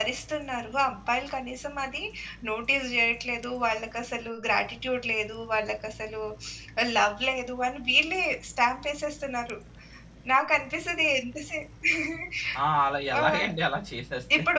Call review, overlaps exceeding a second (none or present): none